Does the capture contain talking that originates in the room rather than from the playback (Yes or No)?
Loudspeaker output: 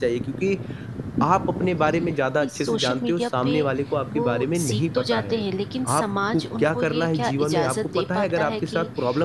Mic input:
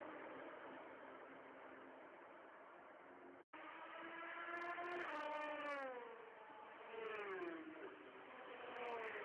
No